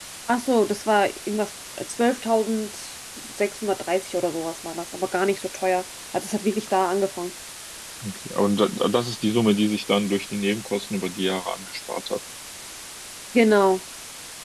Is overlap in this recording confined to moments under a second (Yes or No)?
Yes